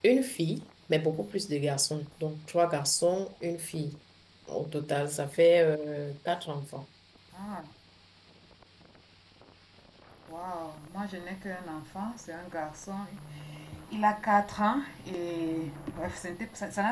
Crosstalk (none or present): none